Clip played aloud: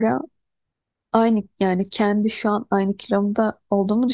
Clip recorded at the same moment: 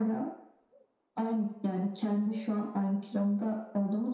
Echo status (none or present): present